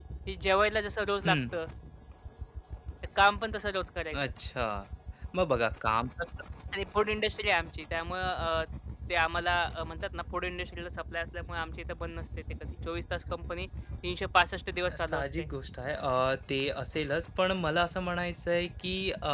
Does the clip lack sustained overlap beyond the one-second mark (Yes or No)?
Yes